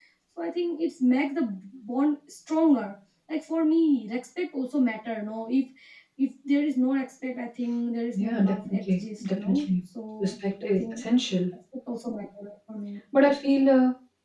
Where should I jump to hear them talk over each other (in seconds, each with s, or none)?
8.1 s